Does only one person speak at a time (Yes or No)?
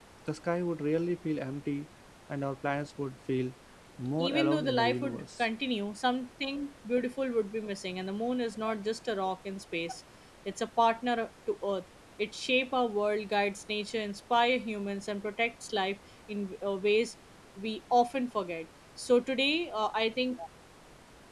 No